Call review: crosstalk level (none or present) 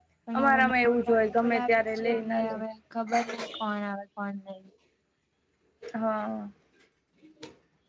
present